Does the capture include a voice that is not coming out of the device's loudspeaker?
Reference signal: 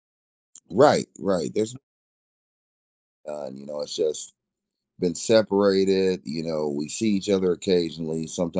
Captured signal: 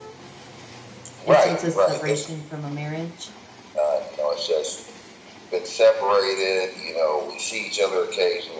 Yes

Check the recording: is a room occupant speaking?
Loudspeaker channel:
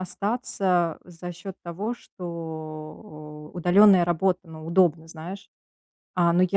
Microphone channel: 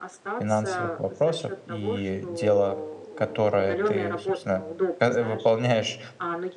Yes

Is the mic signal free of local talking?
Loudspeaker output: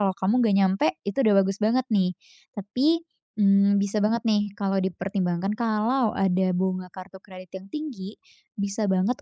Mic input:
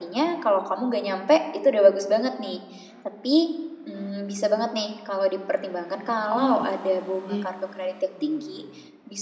No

